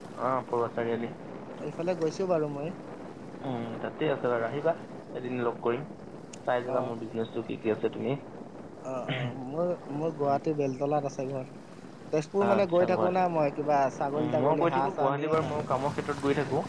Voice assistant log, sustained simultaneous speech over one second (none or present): present